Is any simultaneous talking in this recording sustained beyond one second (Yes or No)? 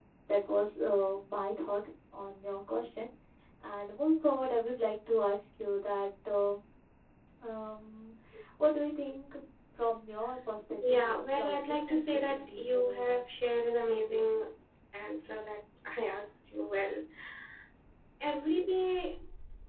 Yes